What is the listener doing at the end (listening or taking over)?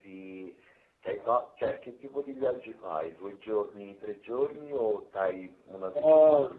taking over